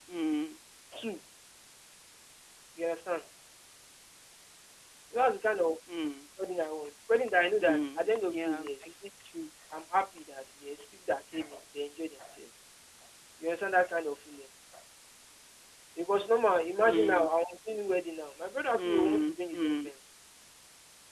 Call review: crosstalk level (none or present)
present